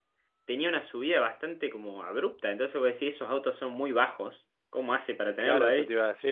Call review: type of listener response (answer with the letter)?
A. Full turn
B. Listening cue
A